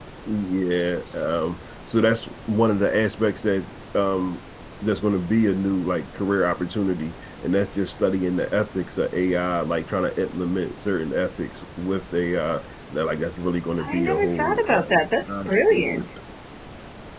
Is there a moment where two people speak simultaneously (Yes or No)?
Yes